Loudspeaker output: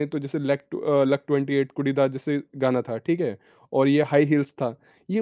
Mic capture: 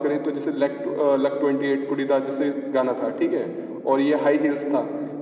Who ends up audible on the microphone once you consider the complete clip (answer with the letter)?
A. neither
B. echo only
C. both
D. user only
B